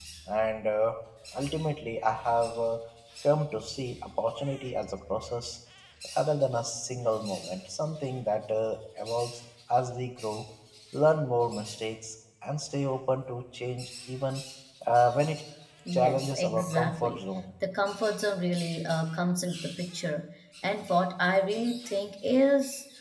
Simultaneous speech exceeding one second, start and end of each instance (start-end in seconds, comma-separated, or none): 15.9-17.2